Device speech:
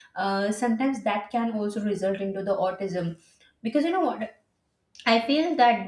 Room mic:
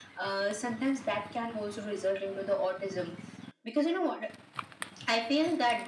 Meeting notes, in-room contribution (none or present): none